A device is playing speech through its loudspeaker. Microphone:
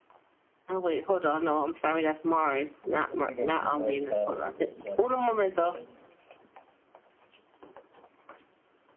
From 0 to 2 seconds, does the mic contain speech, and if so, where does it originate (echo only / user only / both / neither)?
echo only